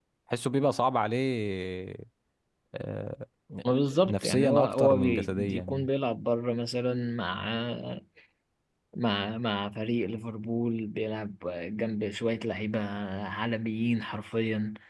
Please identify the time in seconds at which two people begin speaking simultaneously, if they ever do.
3.9 s

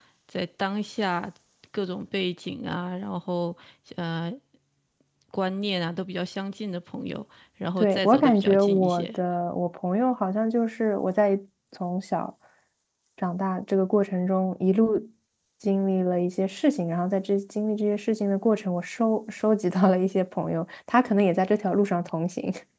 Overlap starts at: 7.8 s

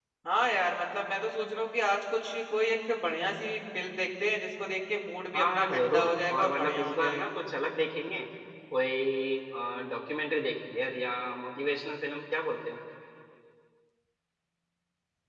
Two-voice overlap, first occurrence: 5.3 s

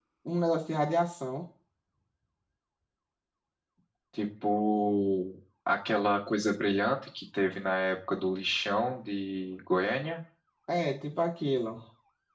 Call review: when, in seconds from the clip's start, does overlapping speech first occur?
none

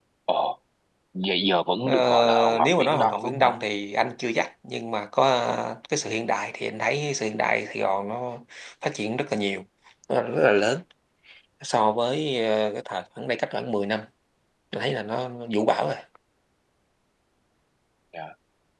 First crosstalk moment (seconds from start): 1.9 s

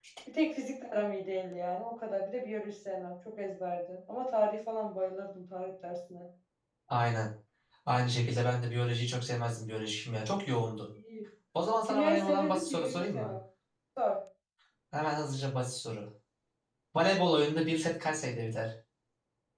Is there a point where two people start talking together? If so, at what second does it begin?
11.8 s

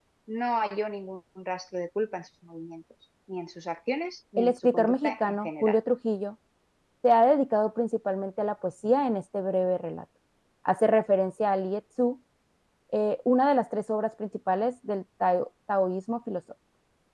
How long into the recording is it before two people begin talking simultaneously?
4.4 s

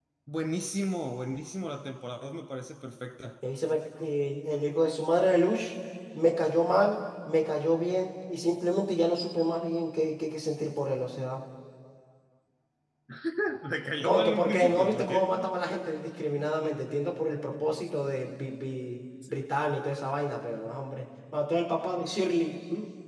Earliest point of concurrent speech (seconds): 14.0 s

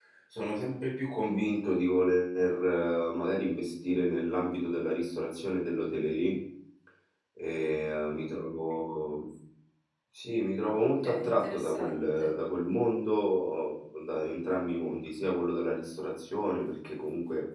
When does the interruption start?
10.6 s

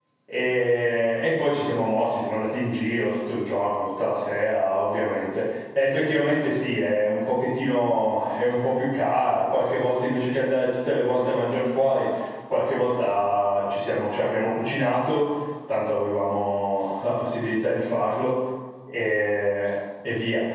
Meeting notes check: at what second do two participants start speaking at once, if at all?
none

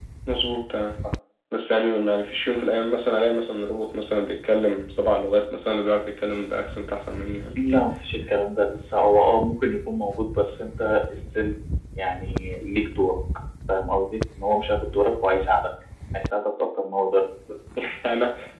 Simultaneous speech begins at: none

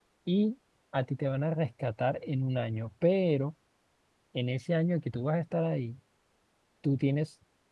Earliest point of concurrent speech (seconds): none

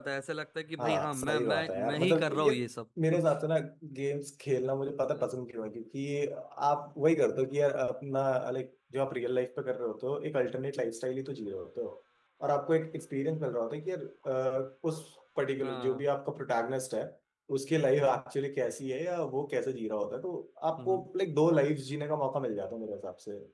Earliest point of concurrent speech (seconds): 0.8 s

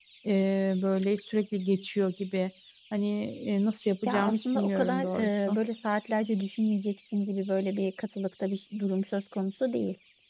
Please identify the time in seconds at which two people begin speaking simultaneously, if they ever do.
4.1 s

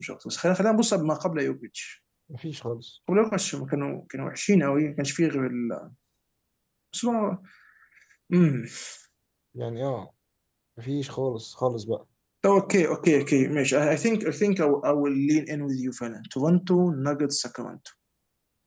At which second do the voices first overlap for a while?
none

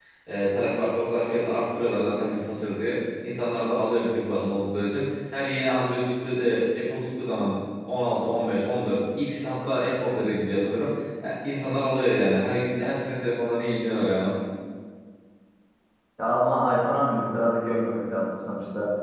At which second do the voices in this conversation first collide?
none

